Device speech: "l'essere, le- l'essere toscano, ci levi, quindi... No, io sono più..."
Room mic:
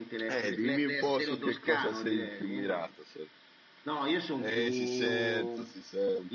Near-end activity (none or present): present